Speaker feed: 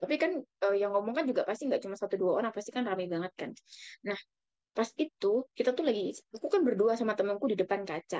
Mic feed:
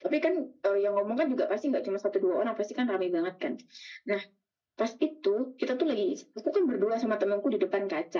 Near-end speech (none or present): none